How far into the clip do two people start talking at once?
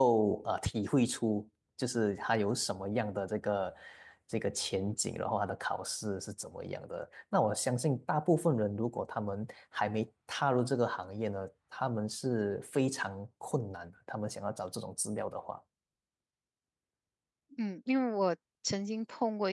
none

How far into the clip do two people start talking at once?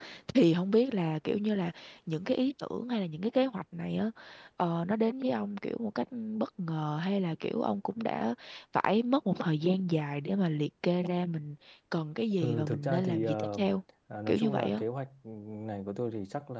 12.3 s

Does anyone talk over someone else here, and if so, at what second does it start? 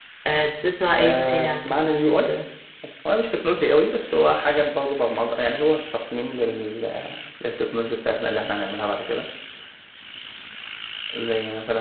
1.0 s

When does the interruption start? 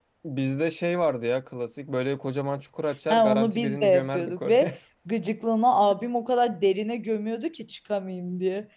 3.1 s

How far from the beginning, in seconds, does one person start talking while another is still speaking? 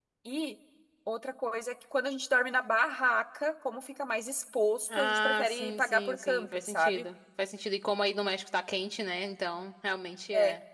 4.9 s

